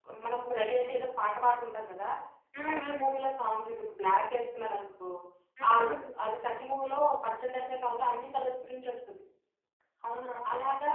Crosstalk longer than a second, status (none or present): none